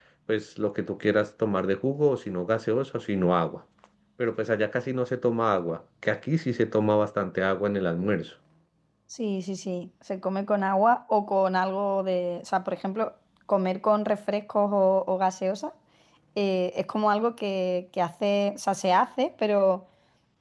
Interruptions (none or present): none